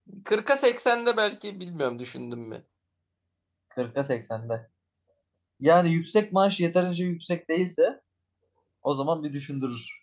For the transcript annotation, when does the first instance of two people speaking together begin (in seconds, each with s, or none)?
none